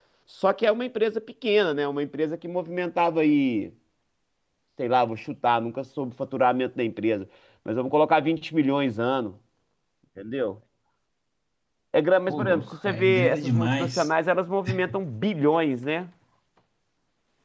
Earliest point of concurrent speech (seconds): 12.3 s

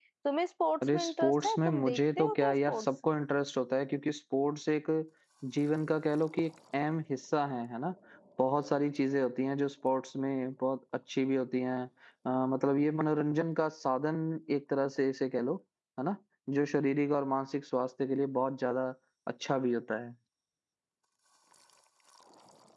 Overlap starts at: 0.9 s

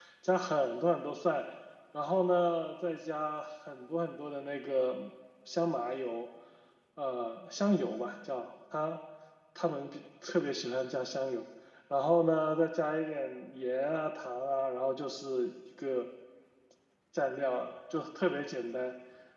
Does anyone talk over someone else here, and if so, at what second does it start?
none

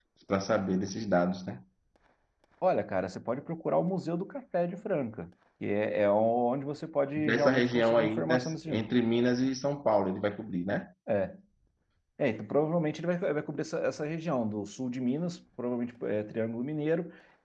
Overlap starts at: 7.2 s

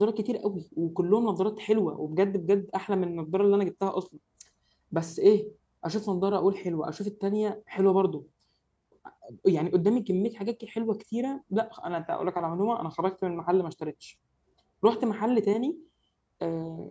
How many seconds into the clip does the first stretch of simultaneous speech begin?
none

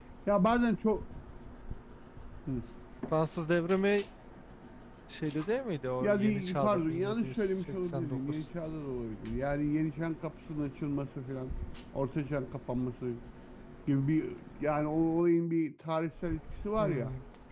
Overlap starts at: 6.0 s

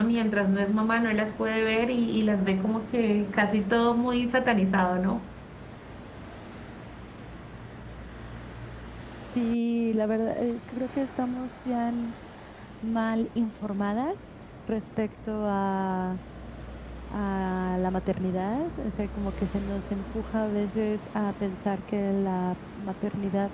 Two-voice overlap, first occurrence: none

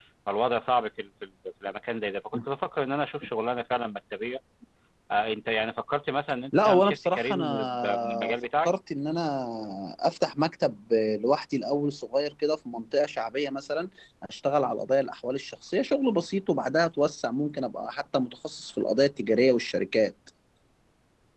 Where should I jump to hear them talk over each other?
6.5 s

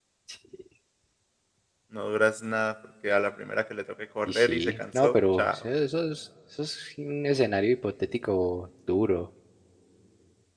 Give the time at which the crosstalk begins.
4.2 s

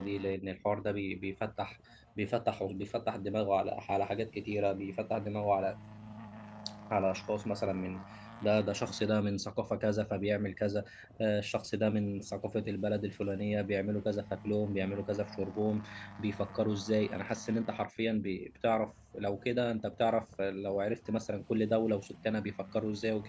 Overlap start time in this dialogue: none

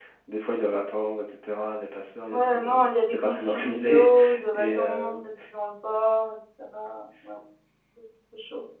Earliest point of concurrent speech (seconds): 2.3 s

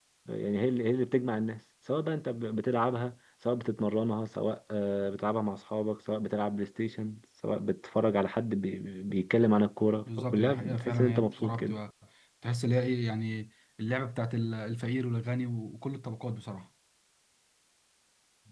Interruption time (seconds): 10.3 s

